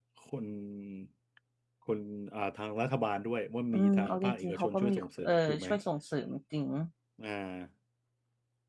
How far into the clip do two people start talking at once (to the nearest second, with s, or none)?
4 s